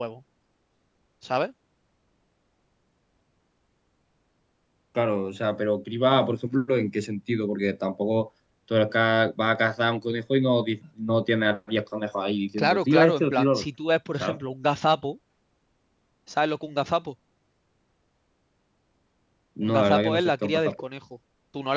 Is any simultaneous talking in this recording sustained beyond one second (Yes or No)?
Yes